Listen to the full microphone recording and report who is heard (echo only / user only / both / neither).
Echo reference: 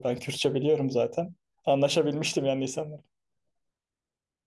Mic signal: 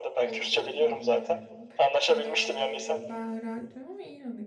both